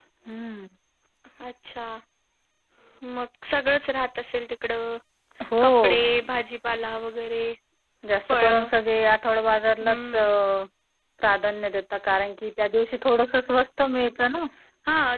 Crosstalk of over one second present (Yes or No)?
No